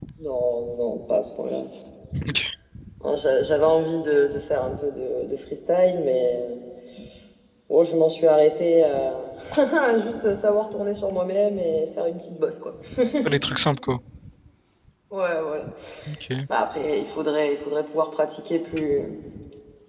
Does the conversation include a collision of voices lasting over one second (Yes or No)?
No